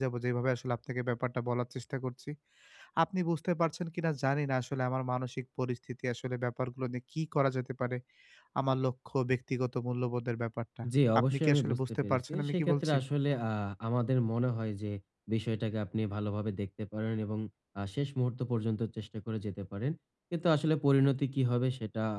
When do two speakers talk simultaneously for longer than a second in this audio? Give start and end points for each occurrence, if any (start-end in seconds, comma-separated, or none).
11.2-13.0